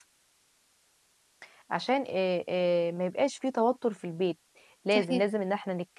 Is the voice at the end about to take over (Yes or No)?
No